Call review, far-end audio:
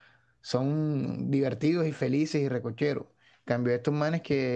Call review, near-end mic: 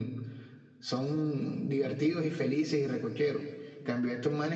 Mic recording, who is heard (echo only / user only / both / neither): echo only